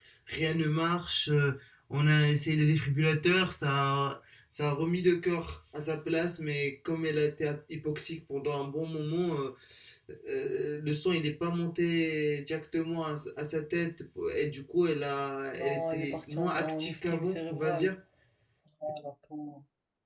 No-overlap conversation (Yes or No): No